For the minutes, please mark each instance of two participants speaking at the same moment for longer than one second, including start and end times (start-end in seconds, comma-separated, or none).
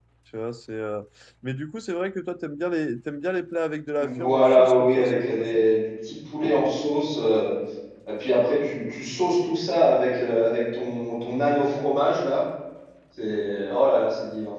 4.0-5.6